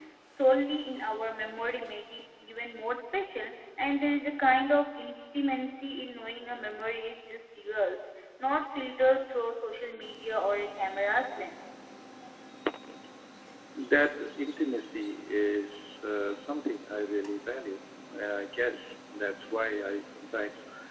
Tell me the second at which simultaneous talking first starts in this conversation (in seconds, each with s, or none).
none